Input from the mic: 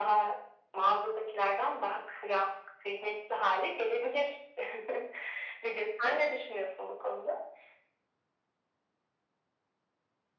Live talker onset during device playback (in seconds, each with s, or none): none